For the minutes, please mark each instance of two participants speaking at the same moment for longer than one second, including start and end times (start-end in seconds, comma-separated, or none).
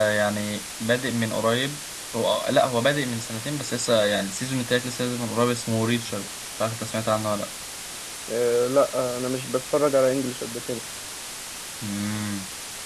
none